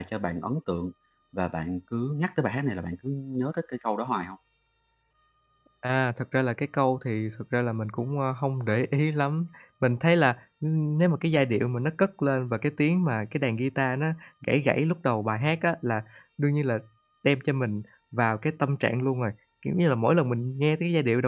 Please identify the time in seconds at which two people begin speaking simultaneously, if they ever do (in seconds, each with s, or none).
none